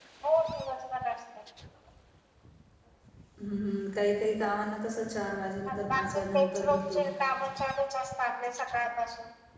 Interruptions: present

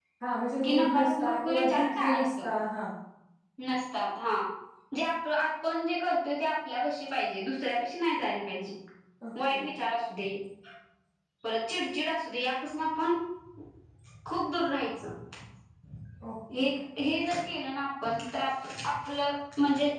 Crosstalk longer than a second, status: present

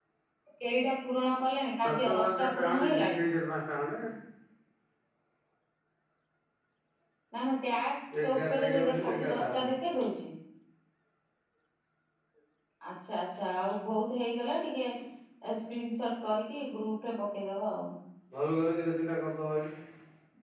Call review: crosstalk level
present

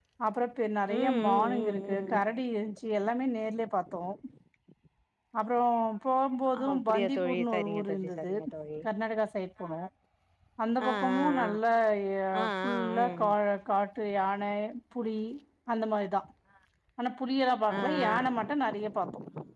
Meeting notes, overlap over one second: present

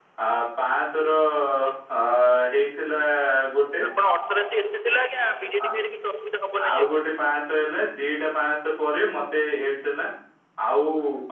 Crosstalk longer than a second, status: none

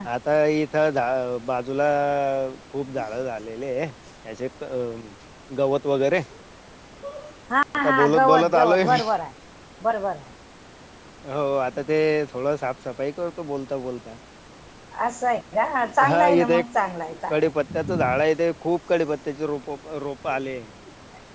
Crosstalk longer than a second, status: present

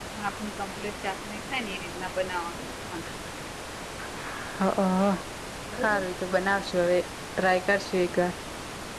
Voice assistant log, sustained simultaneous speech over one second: none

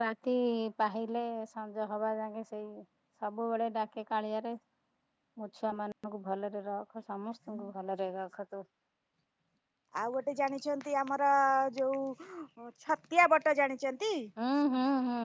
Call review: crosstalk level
none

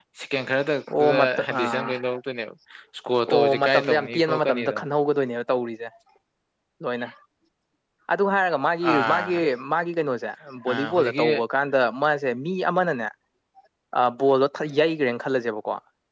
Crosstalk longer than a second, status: present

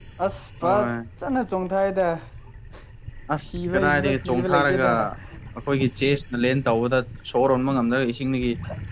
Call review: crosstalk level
present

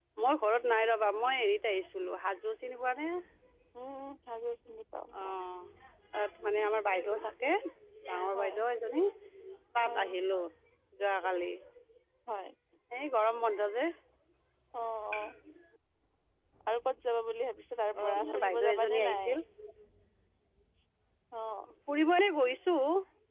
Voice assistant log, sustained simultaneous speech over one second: present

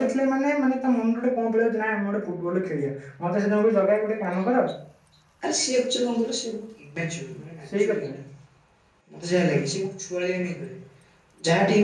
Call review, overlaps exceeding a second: none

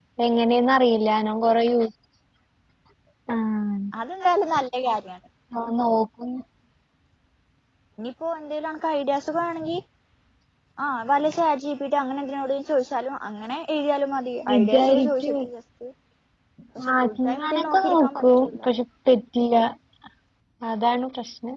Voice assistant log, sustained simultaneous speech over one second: present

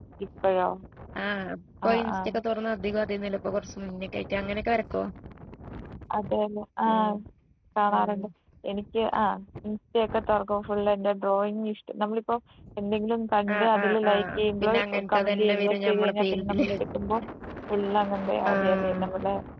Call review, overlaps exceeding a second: present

